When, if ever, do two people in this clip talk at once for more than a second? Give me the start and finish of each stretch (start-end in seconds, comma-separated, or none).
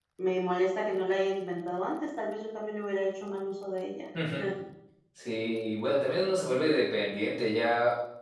none